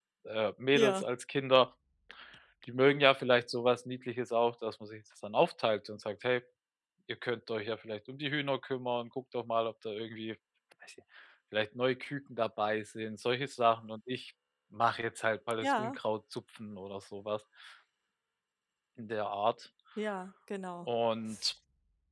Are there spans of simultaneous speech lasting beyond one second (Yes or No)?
No